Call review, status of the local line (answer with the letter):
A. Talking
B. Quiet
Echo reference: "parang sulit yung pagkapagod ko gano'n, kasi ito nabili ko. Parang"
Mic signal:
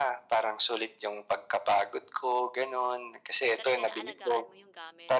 A